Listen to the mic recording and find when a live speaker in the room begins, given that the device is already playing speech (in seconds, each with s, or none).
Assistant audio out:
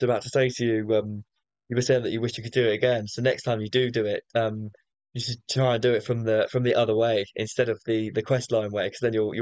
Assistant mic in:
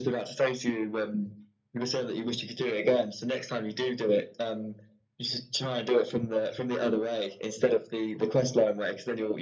none